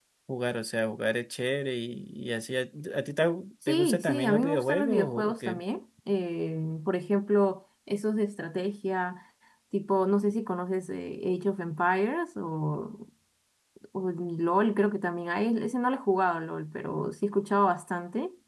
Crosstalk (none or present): present